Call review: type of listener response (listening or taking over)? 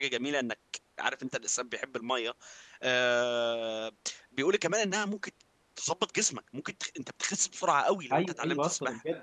taking over